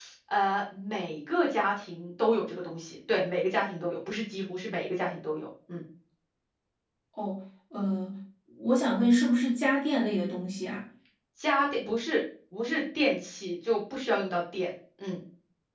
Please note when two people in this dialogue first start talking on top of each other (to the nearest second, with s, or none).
none